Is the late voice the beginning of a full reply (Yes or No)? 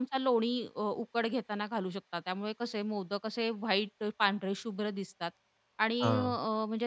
No